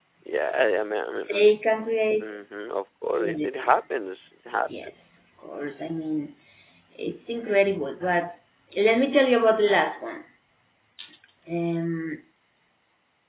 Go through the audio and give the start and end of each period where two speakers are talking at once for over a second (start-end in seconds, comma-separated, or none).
none